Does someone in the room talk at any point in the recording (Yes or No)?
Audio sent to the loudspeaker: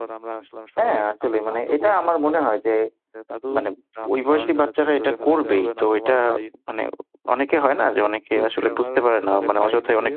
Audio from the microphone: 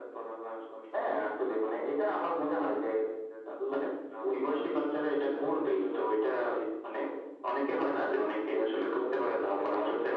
No